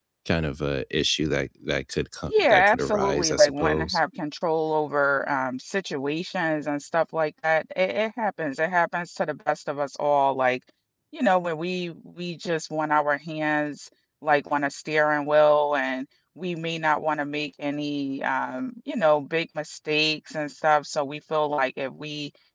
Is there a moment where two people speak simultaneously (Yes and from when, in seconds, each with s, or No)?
Yes, from 2.2 s